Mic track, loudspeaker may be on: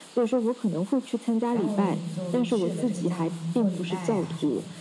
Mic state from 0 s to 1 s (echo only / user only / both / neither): echo only